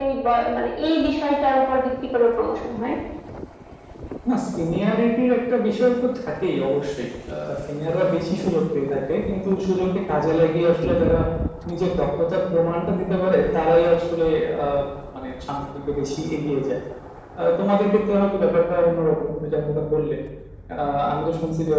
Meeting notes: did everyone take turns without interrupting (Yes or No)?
Yes